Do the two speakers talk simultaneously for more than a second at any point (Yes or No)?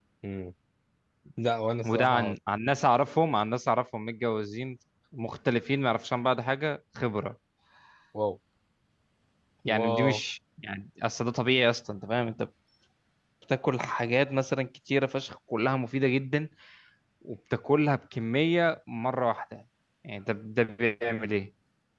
No